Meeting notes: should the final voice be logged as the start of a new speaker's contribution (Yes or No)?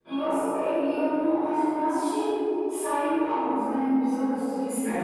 Yes